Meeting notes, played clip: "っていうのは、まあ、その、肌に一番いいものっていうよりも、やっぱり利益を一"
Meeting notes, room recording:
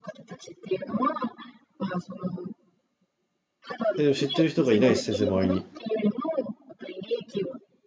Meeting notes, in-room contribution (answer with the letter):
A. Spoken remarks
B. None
A